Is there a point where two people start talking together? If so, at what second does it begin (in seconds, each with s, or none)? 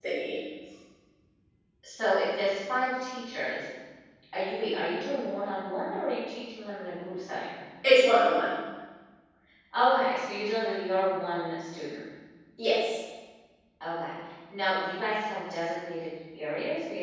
none